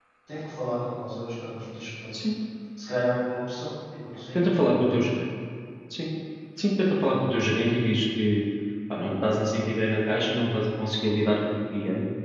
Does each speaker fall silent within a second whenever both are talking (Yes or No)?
Yes